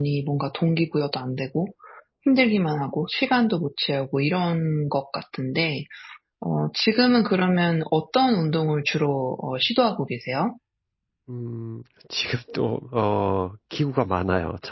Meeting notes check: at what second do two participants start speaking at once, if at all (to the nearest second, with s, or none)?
none